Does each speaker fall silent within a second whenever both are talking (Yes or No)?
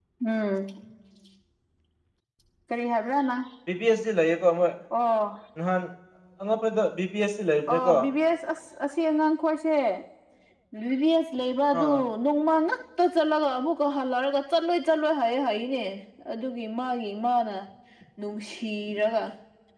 Yes